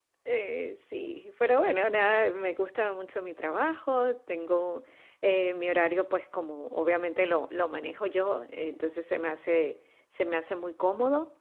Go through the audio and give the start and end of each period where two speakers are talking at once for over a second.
none

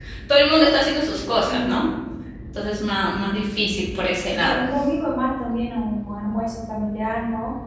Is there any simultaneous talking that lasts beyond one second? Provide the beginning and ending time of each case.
none

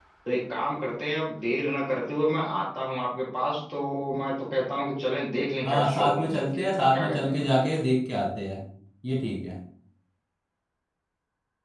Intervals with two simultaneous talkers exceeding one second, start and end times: 5.6-7.4

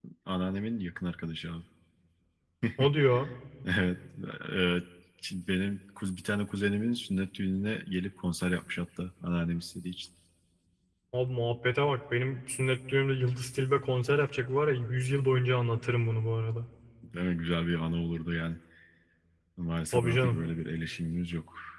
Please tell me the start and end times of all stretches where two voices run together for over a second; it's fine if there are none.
none

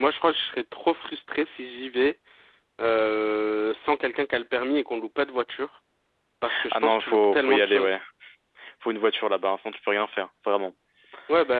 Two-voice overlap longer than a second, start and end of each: 6.7-8.0

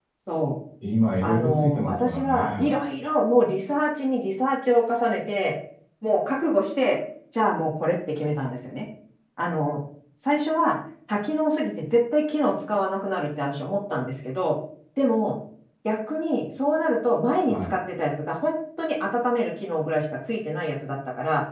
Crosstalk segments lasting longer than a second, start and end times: 1.2-2.8

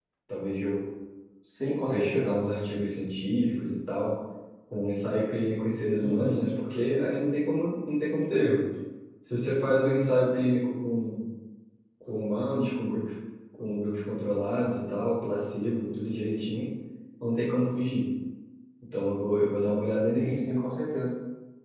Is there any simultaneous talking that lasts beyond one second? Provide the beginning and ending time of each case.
none

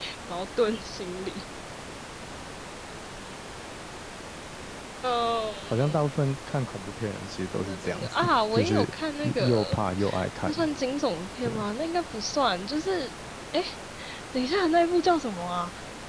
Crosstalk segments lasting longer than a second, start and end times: 7.5-8.8

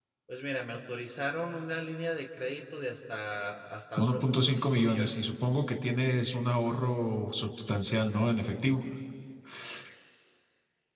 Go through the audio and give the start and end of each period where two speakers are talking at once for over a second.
4.0-5.2

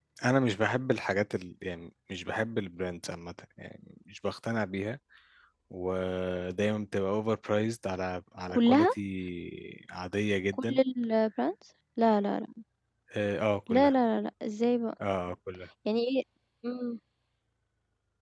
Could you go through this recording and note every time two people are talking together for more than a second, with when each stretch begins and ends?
none

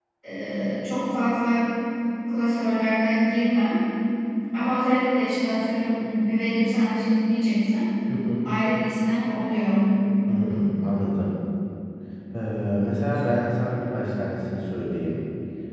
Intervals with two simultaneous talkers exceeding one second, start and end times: none

